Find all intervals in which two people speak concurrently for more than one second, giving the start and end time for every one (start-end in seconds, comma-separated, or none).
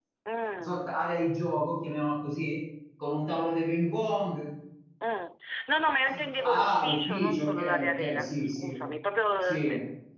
6.4-8.8